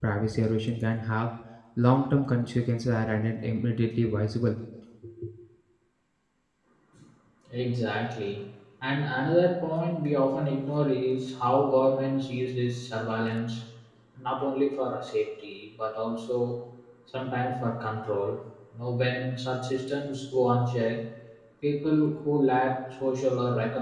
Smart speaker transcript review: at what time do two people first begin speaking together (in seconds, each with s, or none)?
none